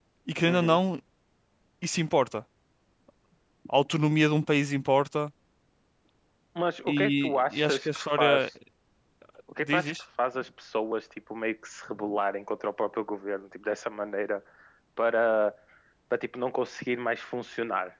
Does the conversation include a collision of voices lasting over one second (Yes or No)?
Yes